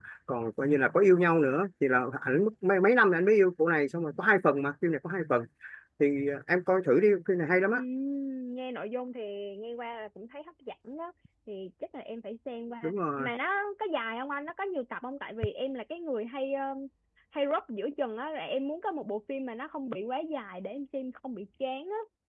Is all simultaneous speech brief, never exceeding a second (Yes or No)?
Yes